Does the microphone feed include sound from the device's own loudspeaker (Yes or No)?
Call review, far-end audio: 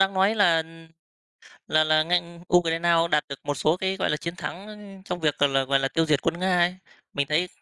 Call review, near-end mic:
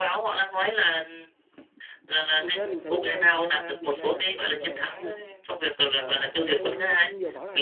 Yes